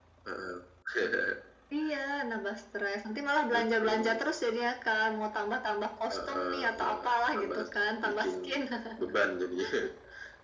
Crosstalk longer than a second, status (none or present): present